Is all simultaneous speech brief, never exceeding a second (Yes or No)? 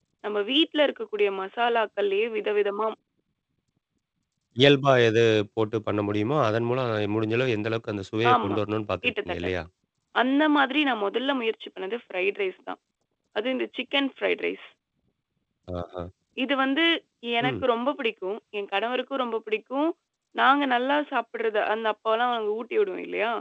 Yes